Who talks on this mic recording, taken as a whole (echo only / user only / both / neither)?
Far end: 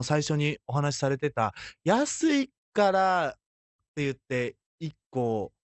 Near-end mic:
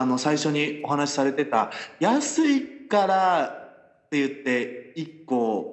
echo only